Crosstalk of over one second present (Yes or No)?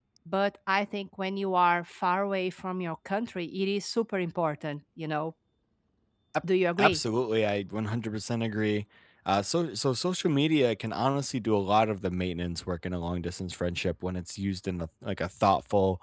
No